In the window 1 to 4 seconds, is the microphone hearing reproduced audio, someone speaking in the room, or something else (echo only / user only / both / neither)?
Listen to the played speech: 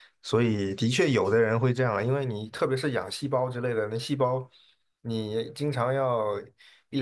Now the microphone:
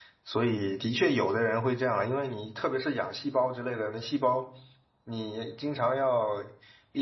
echo only